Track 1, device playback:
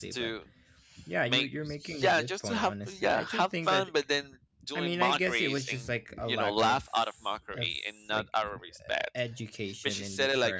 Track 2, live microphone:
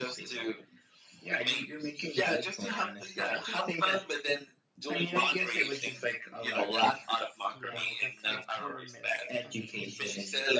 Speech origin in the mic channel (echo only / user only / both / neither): both